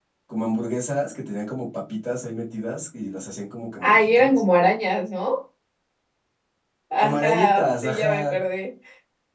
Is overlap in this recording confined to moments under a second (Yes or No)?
No